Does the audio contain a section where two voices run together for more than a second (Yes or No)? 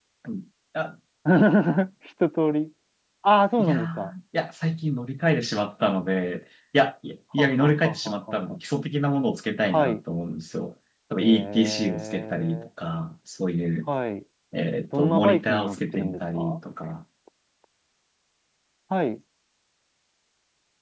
Yes